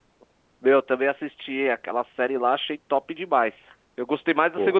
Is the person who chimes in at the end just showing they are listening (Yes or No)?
Yes